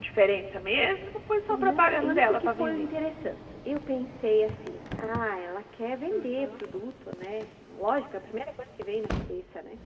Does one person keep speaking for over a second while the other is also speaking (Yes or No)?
Yes